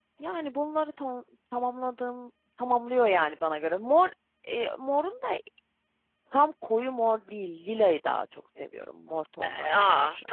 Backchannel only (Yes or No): No